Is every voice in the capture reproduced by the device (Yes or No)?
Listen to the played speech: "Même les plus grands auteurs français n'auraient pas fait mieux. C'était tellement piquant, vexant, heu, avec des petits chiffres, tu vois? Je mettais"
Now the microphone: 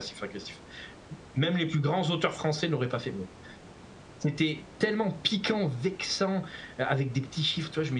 Yes